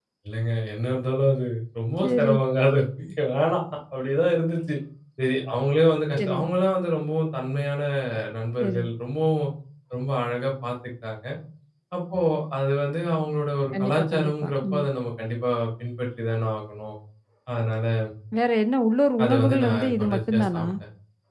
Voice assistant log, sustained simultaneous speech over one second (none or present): present